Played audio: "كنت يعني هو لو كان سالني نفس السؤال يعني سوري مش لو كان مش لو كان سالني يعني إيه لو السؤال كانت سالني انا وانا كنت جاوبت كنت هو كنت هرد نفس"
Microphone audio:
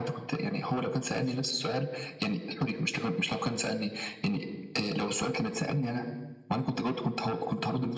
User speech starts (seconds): none

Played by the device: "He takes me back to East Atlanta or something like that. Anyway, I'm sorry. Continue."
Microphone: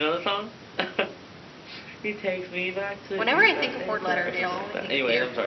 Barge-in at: 3.1 s

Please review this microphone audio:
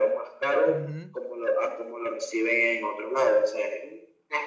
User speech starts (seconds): 0.6 s

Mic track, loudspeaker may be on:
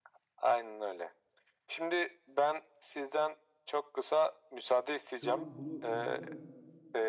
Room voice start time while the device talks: 5.1 s

